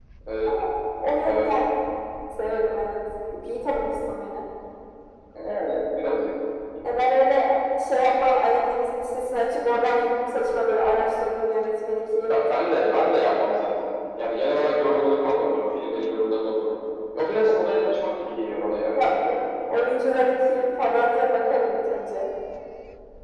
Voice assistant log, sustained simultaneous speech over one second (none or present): none